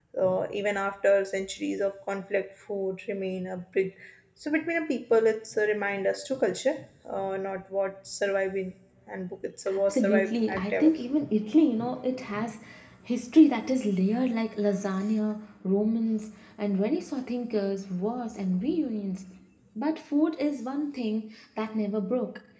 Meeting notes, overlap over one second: present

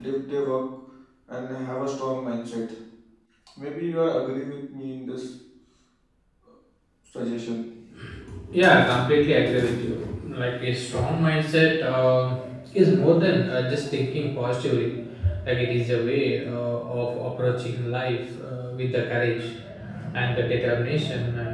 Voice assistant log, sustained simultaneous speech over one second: none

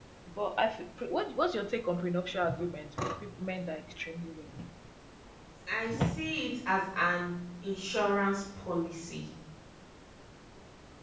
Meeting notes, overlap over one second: none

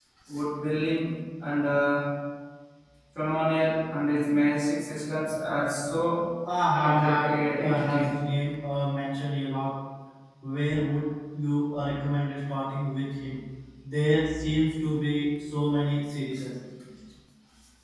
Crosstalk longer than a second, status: present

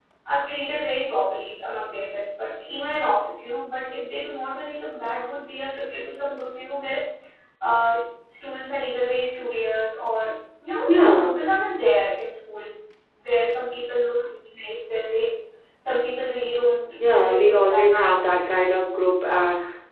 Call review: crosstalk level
present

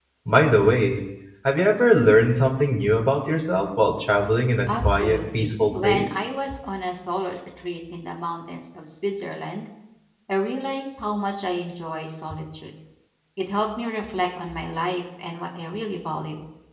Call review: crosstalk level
present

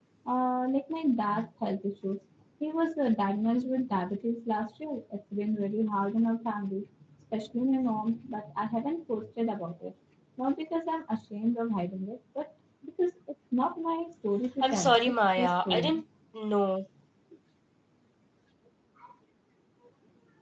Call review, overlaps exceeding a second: present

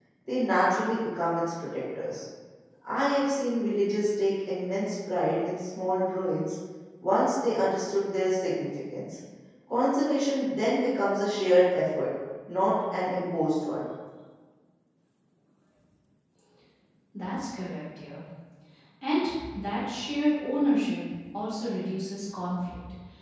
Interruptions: none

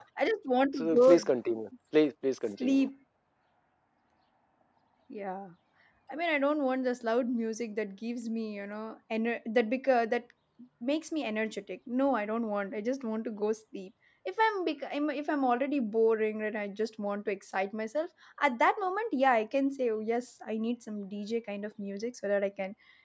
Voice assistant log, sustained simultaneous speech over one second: none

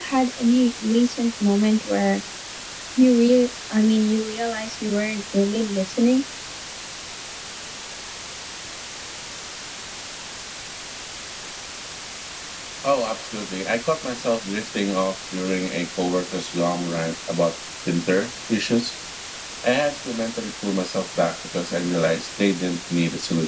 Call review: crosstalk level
none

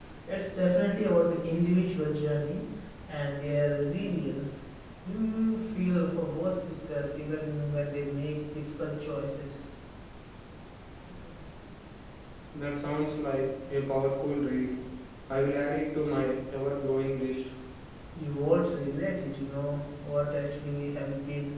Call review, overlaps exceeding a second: none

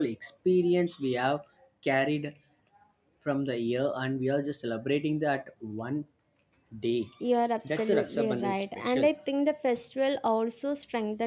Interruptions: present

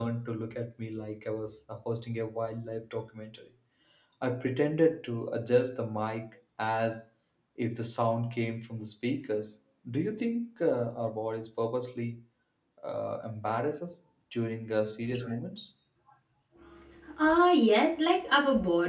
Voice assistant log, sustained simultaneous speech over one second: none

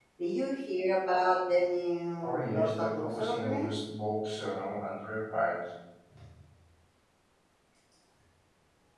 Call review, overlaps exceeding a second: present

